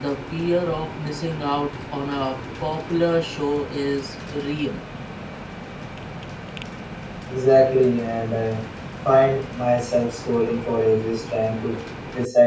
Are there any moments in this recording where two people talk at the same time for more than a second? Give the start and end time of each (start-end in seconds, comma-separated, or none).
none